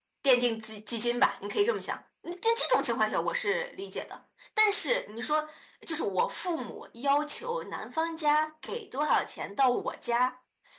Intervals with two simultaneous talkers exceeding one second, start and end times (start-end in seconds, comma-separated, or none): none